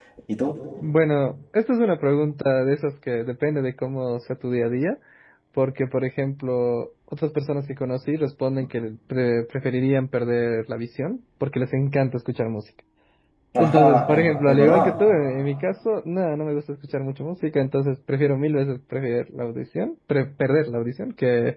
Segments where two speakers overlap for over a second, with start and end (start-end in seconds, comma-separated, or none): 13.6-15.0